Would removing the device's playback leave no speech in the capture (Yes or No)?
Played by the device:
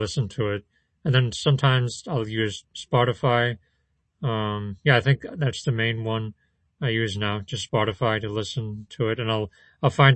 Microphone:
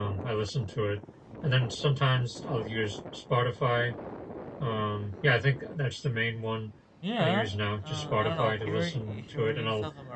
No